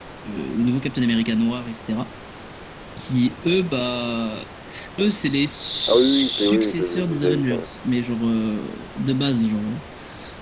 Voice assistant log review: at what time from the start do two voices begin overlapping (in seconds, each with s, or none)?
5.9 s